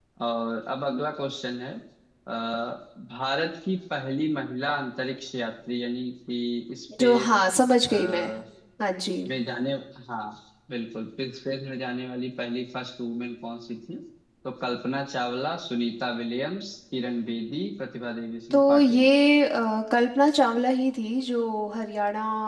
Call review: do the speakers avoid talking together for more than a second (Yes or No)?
Yes